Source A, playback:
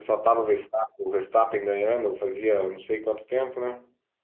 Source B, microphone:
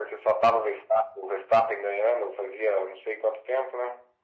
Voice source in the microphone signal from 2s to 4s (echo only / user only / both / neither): echo only